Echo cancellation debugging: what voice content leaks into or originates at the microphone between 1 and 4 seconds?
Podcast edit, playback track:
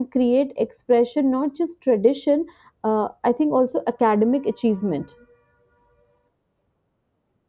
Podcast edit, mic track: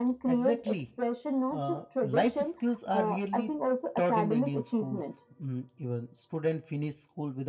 both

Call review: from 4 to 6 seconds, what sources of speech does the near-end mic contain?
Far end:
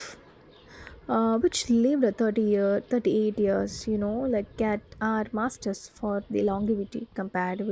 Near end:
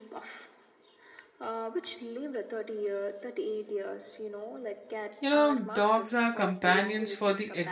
both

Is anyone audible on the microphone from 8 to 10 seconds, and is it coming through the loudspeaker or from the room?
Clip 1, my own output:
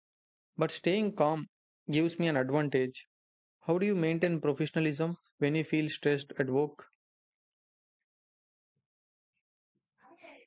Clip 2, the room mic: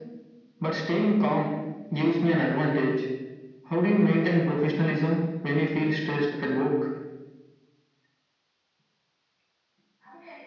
neither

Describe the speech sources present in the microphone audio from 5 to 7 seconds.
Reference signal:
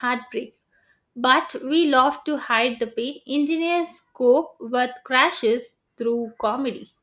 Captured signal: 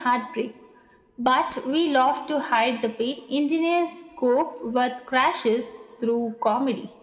echo only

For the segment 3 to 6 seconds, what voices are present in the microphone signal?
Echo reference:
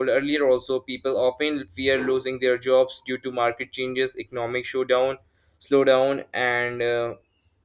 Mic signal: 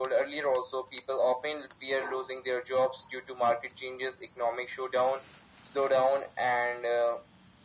echo only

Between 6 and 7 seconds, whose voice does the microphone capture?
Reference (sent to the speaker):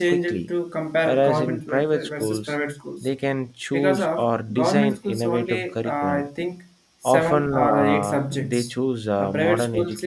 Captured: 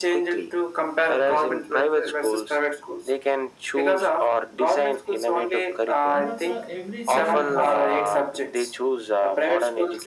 both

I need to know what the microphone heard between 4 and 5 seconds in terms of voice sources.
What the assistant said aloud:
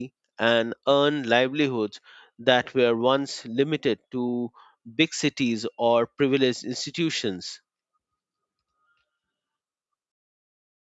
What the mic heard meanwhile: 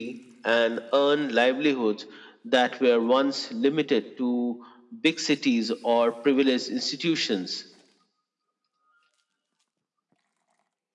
echo only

